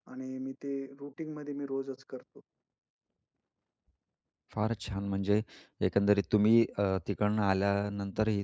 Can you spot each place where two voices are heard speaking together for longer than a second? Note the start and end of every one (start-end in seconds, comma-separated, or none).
none